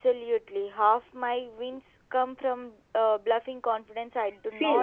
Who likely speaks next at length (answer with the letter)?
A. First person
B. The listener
B